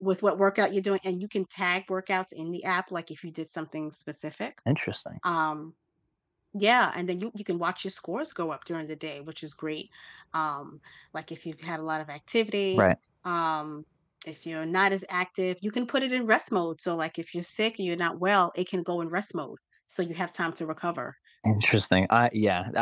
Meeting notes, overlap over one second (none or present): none